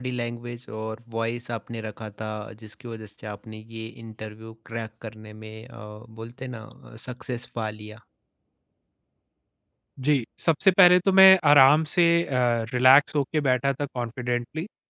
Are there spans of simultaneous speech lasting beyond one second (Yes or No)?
No